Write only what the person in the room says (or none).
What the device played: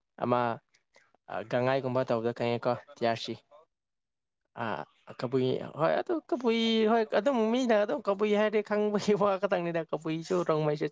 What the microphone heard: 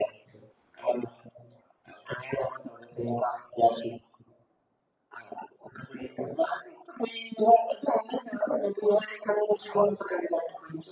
none